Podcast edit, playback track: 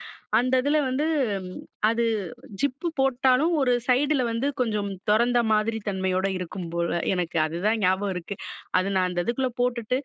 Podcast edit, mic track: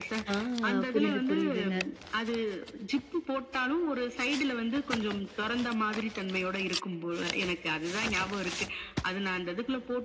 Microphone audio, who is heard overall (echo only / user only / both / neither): both